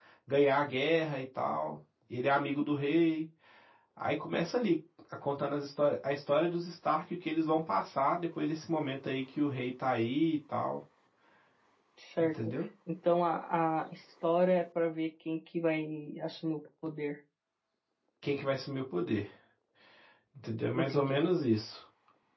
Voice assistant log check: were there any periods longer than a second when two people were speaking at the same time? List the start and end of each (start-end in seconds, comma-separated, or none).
none